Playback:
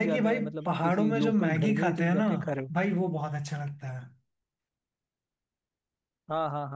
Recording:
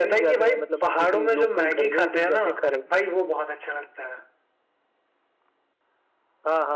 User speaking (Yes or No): No